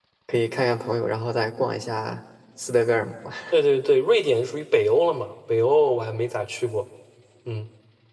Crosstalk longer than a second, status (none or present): none